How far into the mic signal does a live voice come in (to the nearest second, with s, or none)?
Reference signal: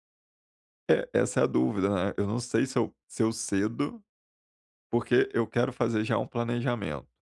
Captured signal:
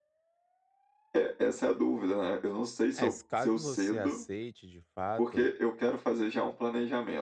3 s